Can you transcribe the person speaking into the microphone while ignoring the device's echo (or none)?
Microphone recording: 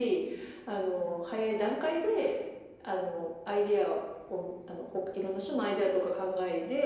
none